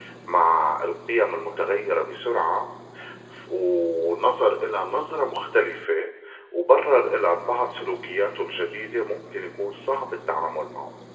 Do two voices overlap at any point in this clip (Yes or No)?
No